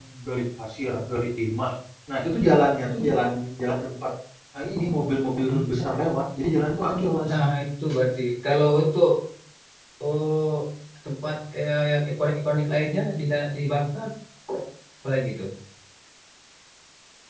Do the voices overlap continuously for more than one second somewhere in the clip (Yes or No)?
No